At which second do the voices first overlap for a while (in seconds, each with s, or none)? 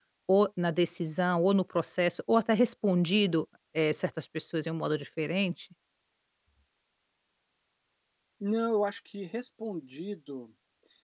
none